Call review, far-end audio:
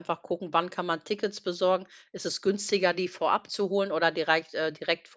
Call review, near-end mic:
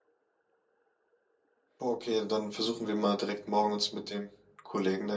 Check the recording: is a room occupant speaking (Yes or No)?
Yes